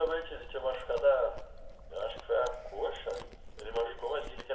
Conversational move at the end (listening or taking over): listening